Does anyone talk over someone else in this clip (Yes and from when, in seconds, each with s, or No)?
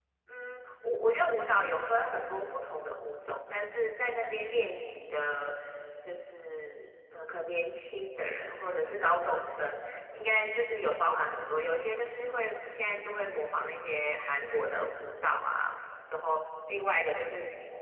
No